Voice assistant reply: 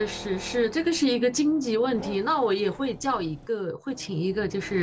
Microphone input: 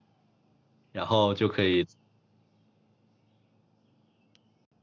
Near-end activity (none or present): present